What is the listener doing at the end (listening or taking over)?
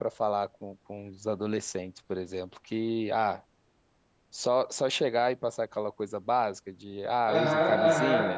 taking over